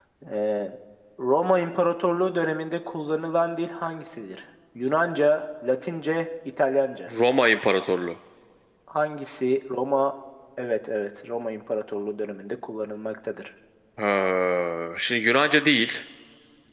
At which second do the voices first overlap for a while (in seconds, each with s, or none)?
none